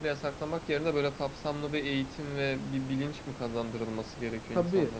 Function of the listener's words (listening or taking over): taking over